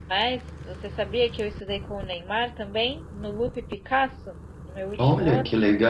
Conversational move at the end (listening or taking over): taking over